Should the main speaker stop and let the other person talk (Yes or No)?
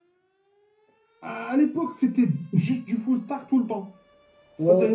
No